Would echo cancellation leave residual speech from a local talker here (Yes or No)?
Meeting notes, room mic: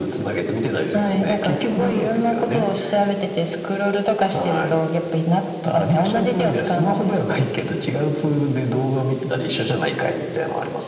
No